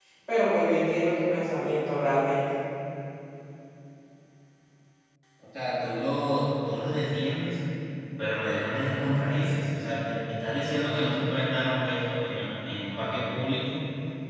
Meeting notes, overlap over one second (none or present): none